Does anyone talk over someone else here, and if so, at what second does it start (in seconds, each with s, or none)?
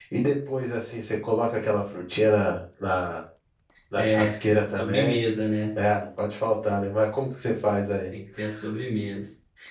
4.0 s